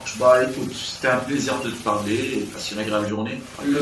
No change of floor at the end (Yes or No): No